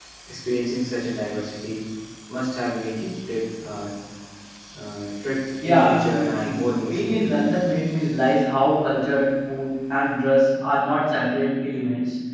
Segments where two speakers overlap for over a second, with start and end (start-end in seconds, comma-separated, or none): 5.6-7.6